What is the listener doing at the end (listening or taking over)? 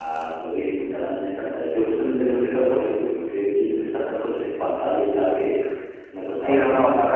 taking over